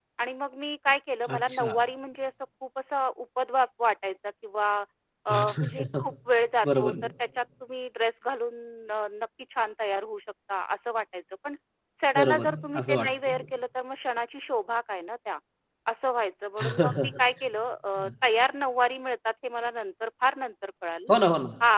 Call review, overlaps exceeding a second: present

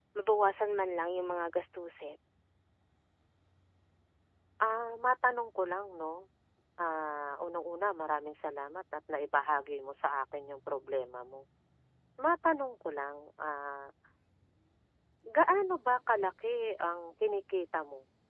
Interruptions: none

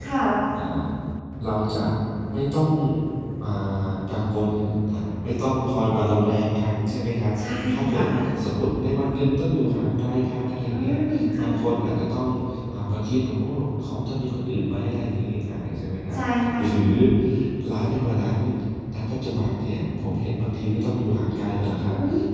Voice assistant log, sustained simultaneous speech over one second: none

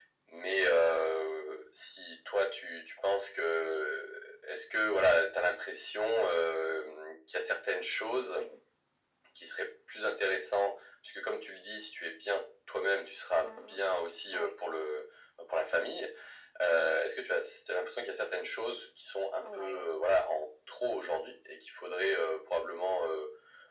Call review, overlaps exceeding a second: none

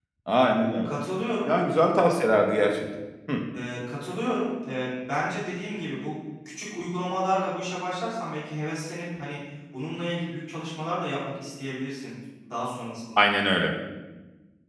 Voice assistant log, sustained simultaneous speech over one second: none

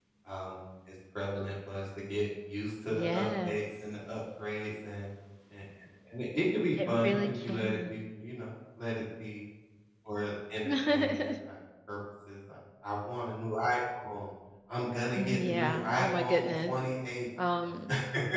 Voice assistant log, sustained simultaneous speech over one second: present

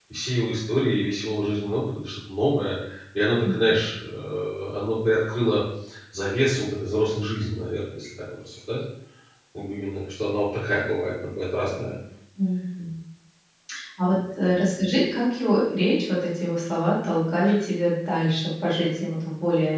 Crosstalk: none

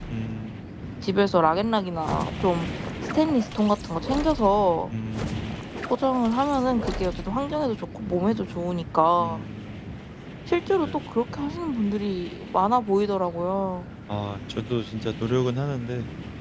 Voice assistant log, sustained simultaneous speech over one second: none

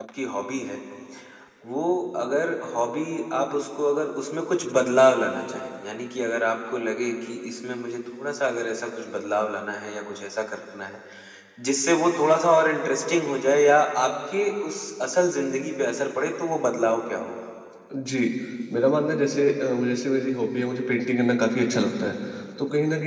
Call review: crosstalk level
none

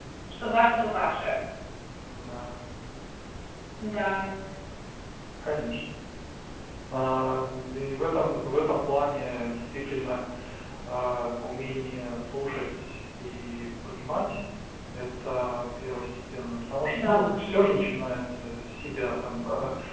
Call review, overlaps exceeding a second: none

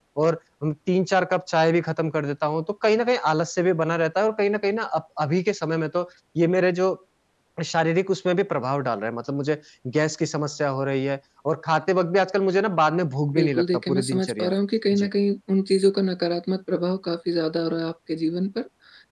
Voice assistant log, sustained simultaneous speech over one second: present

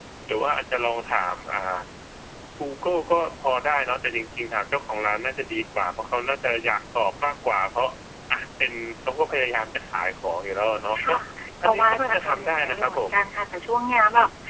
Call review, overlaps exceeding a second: present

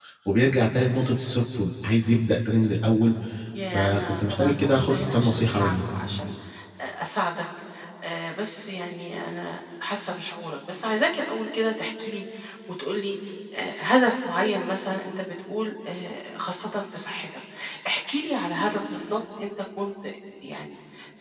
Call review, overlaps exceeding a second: present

